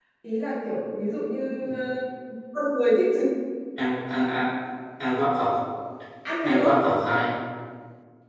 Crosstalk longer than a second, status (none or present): none